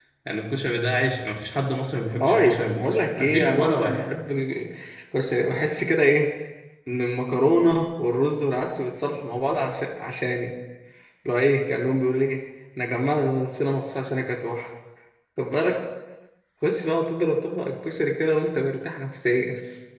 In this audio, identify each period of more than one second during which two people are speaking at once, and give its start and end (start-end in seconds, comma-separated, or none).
2.2-4.0